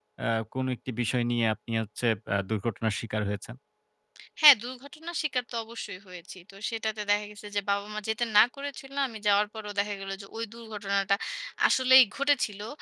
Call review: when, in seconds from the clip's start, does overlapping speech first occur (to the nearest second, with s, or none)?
none